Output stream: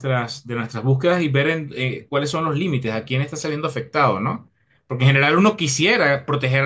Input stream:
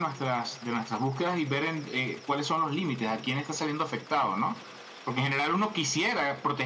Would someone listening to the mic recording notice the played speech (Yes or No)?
Yes